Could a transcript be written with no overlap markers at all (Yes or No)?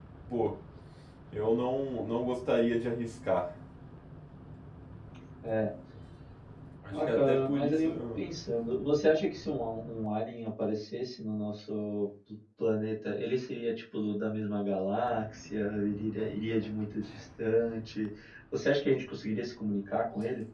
No